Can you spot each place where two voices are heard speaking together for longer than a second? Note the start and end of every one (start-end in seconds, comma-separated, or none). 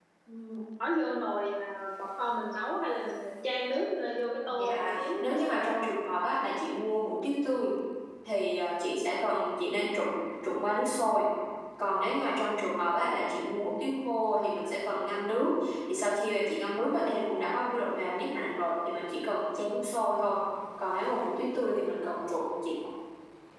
4.5-5.8